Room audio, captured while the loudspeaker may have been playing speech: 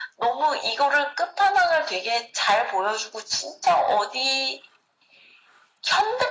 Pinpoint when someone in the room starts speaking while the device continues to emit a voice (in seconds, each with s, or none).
none